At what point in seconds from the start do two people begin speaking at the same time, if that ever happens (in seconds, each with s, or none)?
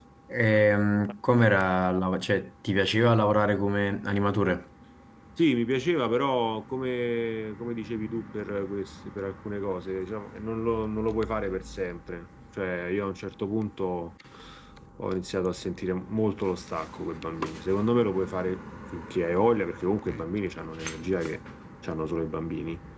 none